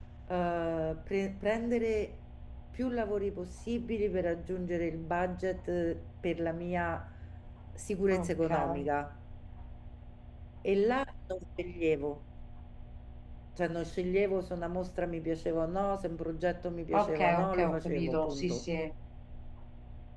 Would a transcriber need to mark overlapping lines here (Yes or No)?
Yes